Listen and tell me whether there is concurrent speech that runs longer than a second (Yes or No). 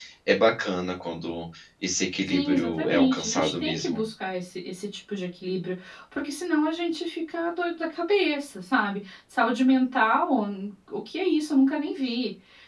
Yes